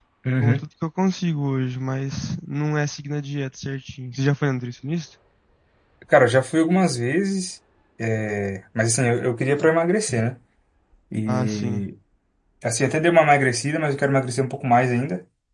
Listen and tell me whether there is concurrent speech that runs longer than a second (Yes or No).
No